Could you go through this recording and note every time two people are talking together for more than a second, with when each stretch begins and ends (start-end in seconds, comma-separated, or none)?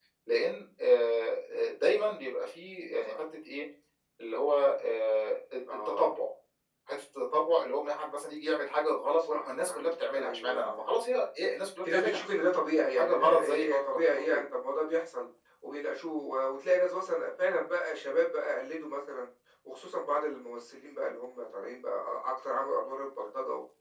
9.3-10.8, 12.9-14.4